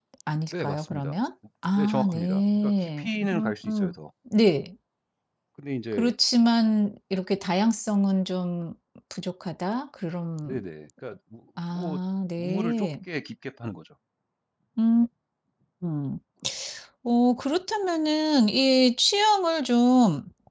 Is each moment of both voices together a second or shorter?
No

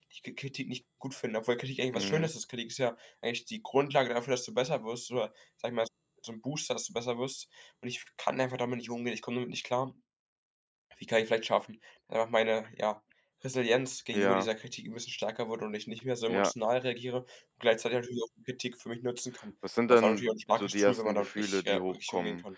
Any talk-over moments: Yes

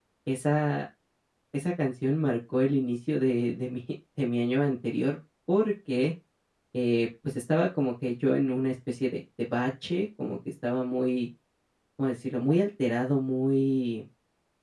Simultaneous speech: No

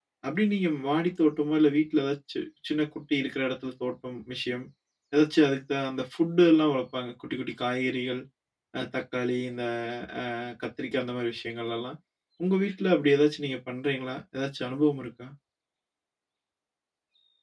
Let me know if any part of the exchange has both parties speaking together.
No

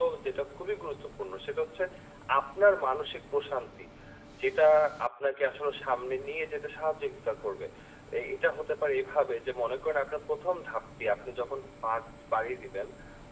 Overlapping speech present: No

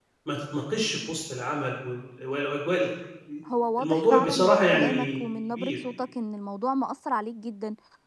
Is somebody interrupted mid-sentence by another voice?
Yes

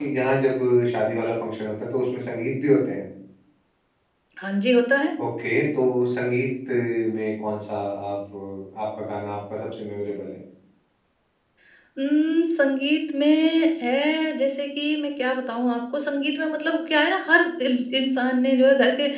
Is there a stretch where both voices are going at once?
No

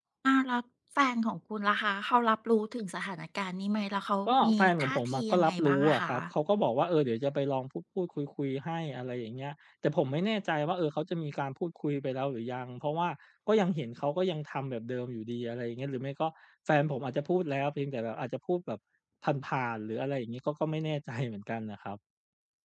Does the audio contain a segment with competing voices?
Yes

